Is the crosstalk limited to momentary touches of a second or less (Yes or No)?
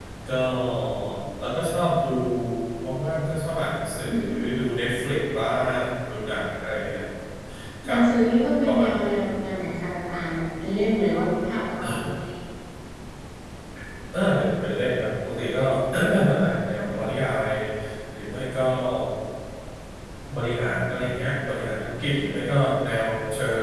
Yes